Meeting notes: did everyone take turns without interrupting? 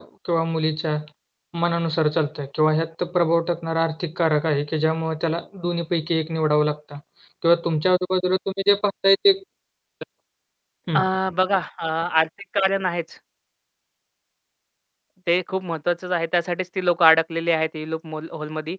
Yes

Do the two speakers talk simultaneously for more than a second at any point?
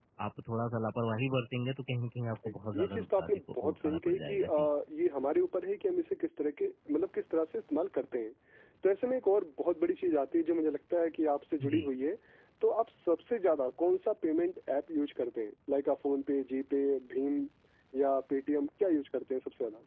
Yes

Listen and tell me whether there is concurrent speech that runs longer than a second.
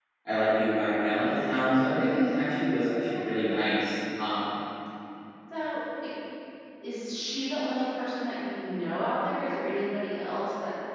No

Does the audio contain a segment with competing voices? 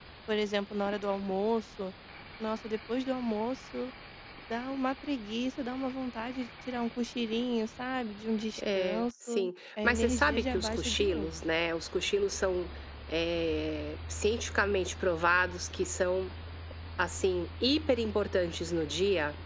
Yes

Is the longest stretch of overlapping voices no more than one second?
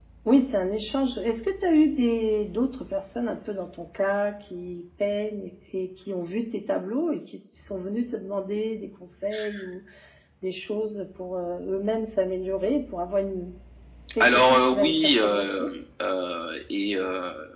No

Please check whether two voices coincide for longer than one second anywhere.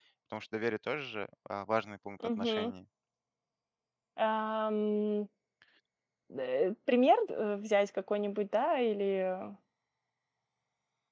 No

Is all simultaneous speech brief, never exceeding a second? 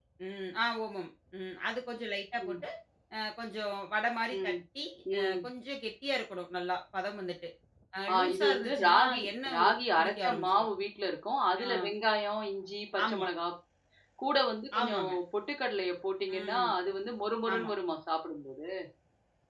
No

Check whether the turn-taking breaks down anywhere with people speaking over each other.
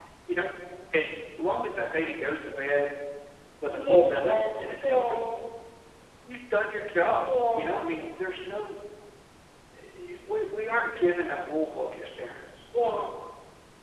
Yes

